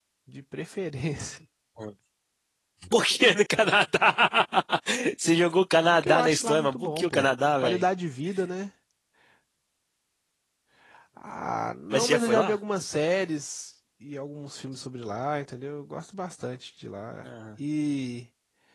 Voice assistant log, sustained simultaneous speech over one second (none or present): present